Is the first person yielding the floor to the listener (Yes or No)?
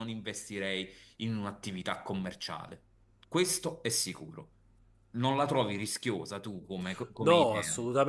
Yes